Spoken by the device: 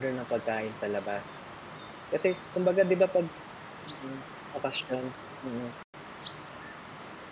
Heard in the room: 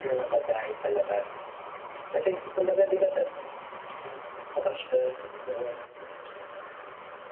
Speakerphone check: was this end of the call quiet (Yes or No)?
Yes